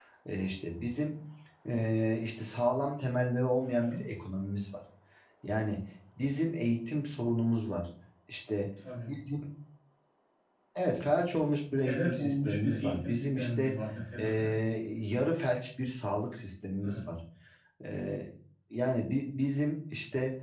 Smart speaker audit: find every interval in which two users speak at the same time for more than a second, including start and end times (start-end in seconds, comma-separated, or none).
11.8-13.7